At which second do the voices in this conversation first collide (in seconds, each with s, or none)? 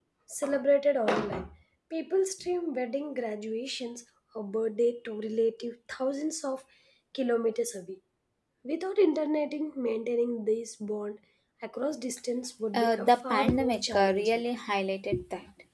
12.7 s